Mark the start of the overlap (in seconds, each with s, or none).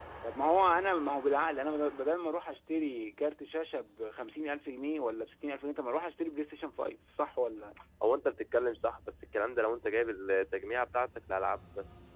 none